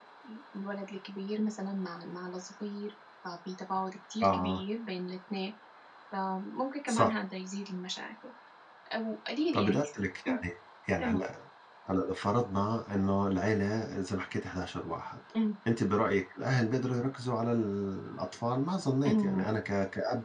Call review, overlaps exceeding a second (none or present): none